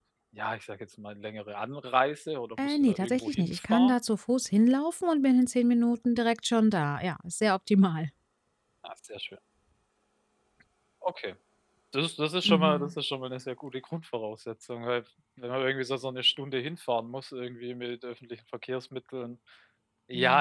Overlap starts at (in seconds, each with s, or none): 2.6 s